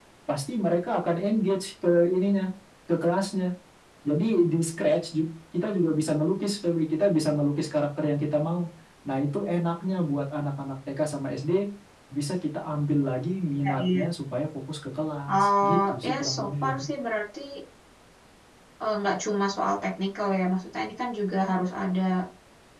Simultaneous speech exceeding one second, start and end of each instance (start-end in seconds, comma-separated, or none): 15.3-16.9